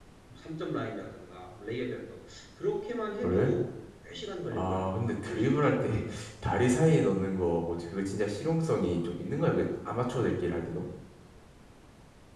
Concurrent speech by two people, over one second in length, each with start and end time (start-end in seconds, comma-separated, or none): 4.5-6.0